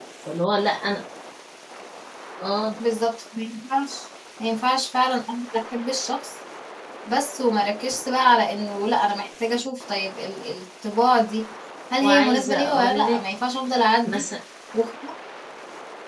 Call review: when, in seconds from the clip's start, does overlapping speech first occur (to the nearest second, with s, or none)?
12 s